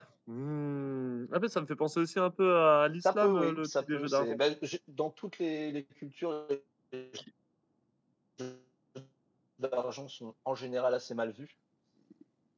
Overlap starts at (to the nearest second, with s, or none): 3 s